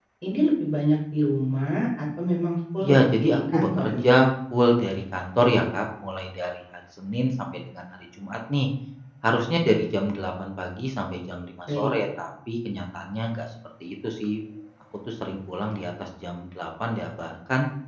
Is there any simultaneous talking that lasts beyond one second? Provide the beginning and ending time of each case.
2.8-4.2

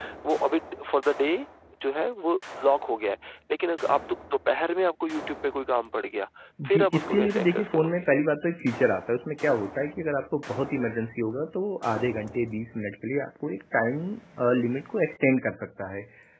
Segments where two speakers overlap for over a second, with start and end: 6.7-8.1

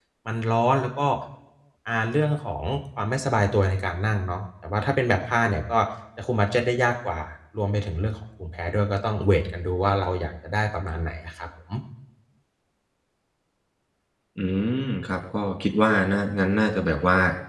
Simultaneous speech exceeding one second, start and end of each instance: none

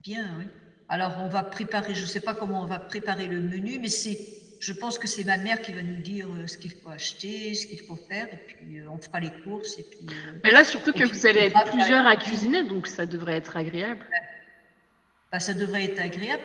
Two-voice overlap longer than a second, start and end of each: 10.9-12.4

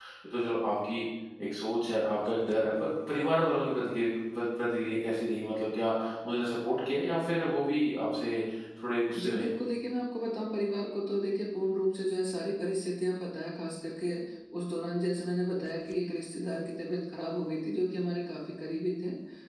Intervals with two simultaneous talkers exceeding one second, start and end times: none

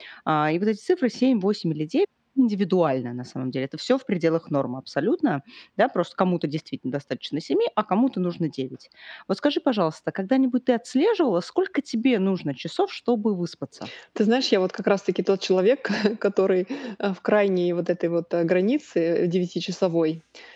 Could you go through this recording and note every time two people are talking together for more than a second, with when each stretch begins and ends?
none

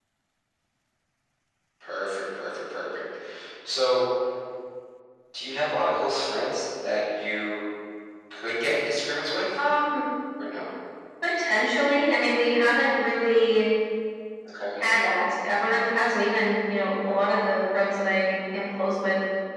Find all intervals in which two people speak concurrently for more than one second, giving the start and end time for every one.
none

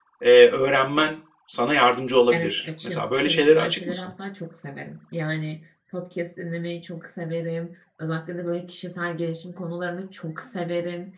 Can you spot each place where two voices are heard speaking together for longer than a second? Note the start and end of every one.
2.3-4.0

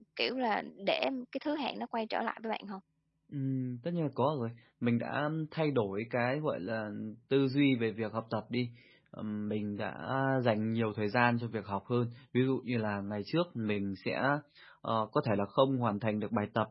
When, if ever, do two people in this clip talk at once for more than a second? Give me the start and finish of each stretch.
none

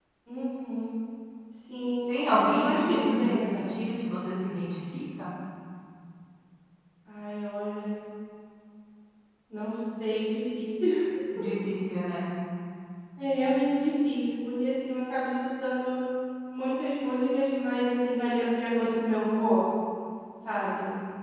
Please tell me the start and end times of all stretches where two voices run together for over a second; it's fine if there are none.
2.1-3.8

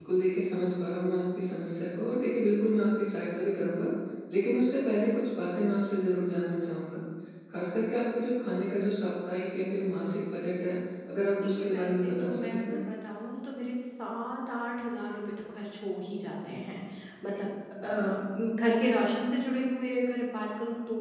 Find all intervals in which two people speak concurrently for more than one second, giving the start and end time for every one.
11.4-12.8

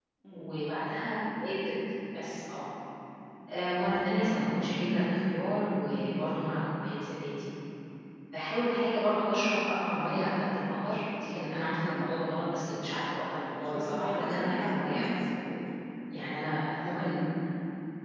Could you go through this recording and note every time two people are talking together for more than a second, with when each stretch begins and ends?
13.6-15.1

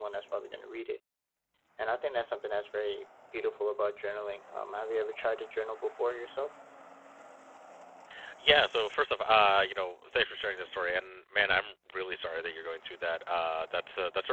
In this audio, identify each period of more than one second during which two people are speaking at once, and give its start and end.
none

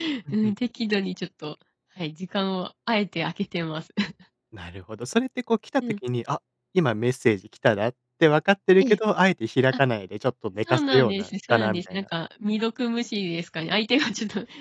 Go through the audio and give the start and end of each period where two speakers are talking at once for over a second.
10.7-12.0

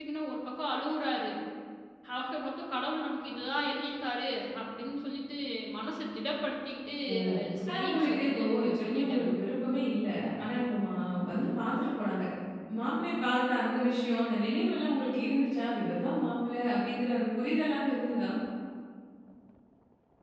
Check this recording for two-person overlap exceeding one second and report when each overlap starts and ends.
7.7-9.3

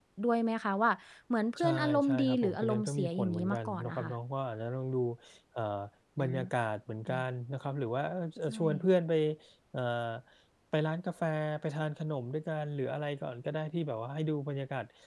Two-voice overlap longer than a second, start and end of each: 1.6-4.1

